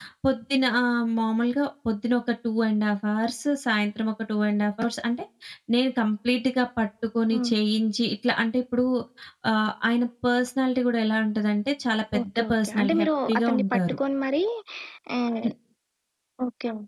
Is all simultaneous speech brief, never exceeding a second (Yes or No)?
No